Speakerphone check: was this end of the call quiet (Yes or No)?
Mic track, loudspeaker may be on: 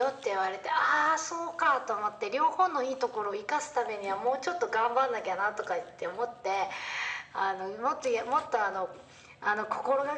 Yes